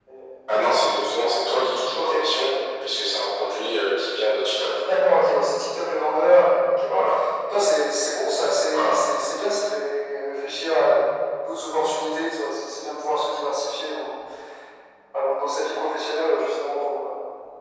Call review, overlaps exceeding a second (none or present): none